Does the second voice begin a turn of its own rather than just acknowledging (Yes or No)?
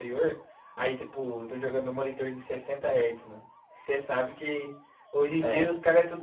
No